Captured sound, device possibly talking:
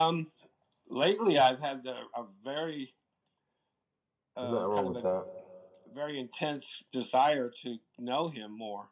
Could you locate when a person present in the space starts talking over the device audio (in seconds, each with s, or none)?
4.4 s